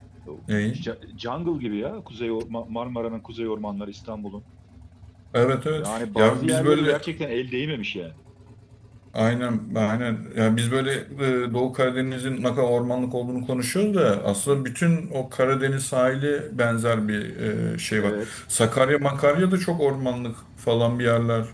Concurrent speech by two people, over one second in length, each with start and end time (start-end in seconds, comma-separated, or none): 5.7-7.0